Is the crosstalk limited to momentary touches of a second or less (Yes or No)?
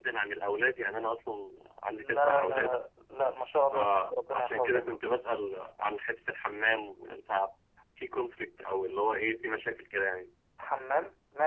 No